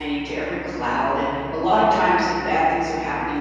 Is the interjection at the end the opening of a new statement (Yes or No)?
No